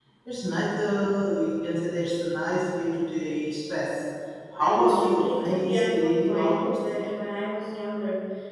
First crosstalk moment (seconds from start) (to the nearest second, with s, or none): 5 s